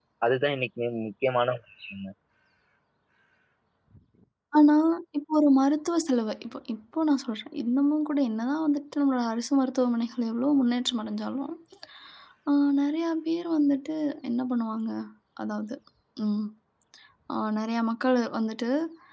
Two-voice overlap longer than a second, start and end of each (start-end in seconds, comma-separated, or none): none